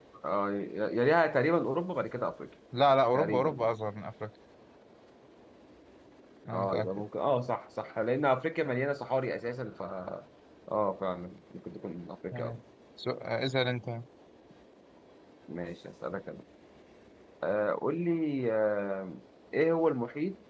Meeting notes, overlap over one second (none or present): none